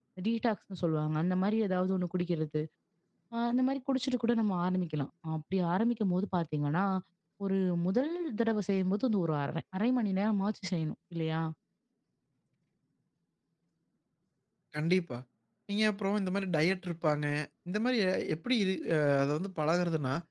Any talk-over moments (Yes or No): No